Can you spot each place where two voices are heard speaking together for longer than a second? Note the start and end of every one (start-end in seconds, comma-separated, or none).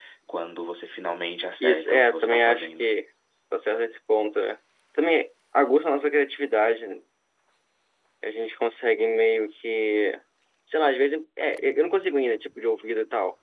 1.6-2.9